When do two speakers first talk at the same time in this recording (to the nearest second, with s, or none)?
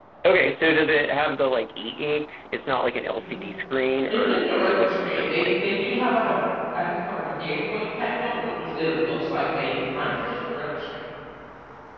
4 s